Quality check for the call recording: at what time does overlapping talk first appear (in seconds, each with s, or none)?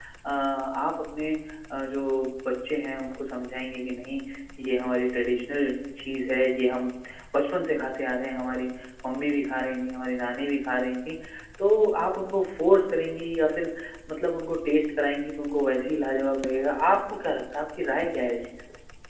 none